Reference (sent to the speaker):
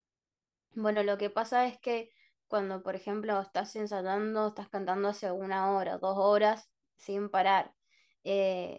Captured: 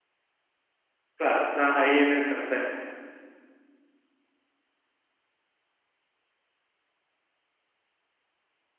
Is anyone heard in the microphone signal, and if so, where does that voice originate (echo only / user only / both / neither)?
user only